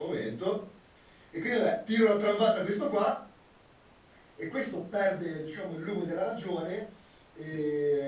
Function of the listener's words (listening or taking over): listening